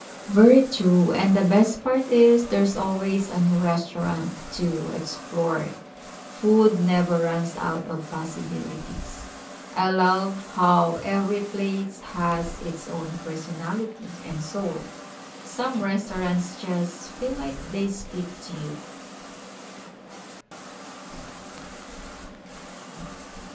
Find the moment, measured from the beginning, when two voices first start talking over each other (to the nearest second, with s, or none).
none